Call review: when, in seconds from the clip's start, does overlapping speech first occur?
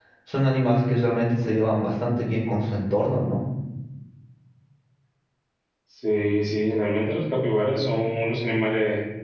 none

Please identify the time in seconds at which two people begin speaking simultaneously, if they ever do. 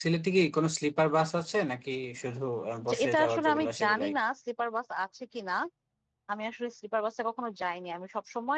2.8 s

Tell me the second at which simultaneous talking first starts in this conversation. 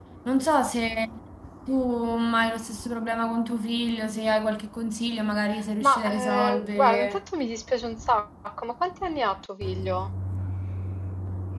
5.8 s

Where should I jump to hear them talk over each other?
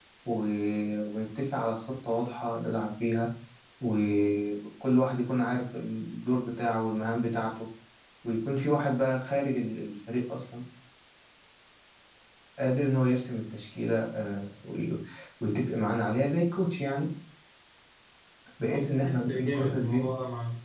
18.7 s

